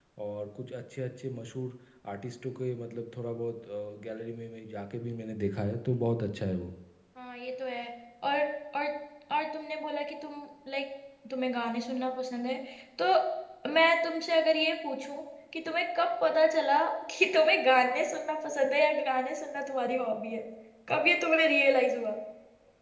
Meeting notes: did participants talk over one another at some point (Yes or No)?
No